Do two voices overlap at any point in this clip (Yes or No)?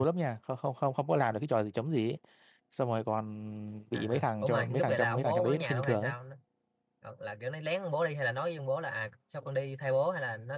Yes